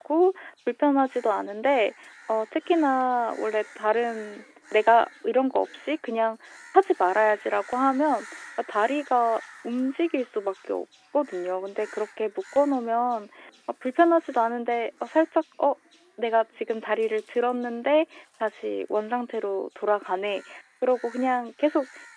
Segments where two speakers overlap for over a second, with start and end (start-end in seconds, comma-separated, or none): none